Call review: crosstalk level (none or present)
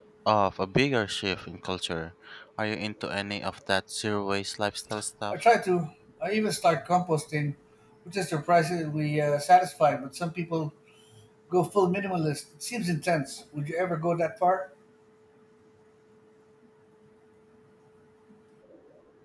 none